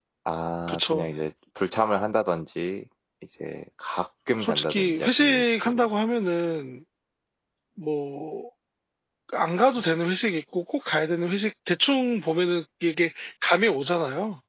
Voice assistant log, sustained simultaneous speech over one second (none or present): present